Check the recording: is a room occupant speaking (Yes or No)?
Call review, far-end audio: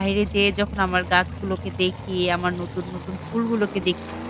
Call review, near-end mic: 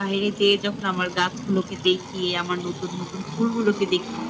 No